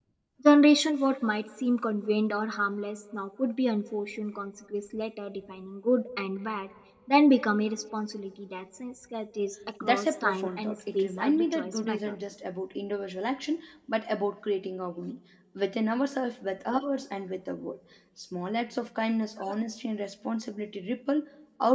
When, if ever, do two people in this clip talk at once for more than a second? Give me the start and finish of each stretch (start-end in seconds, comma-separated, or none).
9.8-12.1